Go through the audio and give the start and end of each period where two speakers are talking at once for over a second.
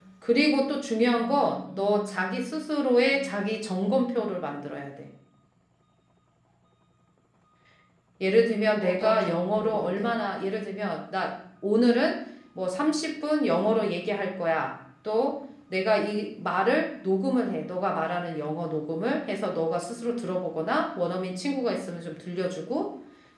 1.1-2.4, 8.8-10.1

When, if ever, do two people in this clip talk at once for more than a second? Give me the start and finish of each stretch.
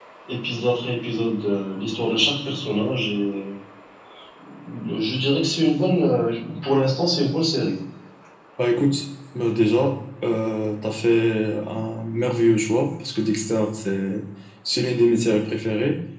none

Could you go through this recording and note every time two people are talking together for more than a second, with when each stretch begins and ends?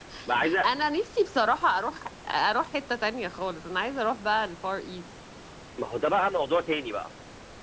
none

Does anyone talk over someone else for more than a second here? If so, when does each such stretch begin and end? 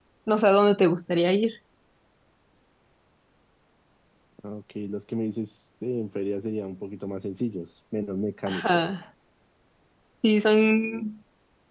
none

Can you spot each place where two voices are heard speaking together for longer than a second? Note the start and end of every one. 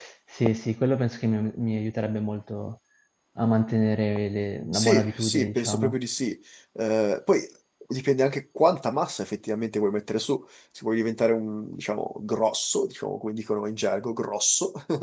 4.7-5.9

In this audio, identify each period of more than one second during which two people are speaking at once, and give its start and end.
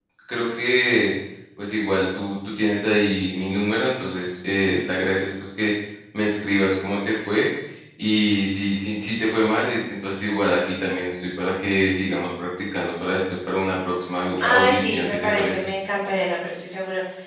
14.4-15.7

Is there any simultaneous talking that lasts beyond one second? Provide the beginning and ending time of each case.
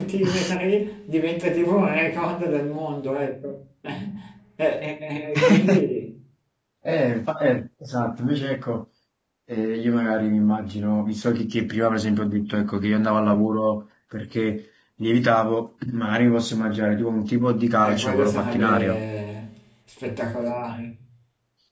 17.8-19.0

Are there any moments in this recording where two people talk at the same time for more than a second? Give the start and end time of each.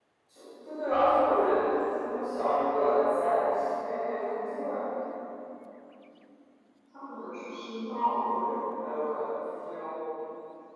none

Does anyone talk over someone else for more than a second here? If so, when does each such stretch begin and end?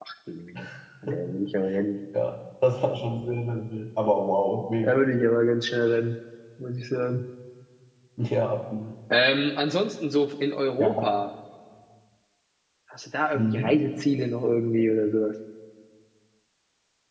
none

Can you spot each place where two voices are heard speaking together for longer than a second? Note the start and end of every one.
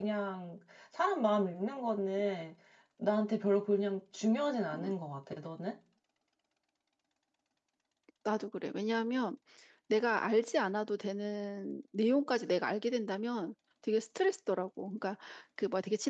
none

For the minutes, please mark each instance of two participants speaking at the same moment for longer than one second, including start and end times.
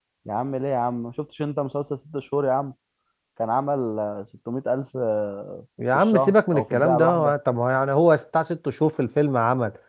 5.9-7.3

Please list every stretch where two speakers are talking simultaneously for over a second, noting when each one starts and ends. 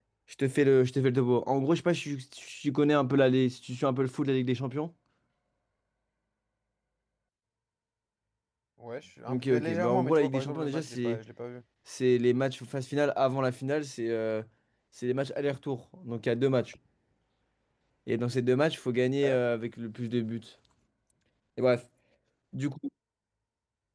9.3-11.2

